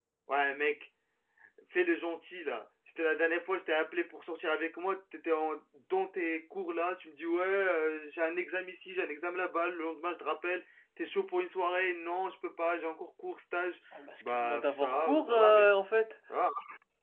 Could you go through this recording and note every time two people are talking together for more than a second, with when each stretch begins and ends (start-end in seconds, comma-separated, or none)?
14.2-15.7